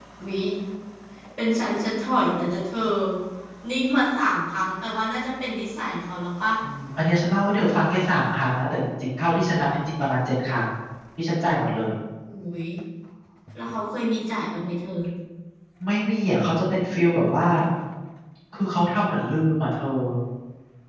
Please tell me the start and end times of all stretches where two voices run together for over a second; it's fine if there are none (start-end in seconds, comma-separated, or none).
none